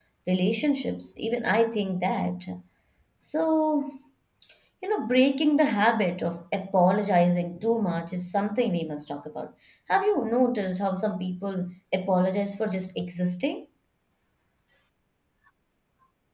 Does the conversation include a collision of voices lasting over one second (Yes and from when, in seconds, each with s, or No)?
No